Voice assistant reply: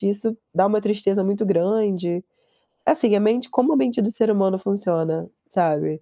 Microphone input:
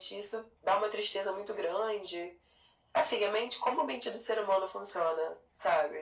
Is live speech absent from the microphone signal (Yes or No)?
Yes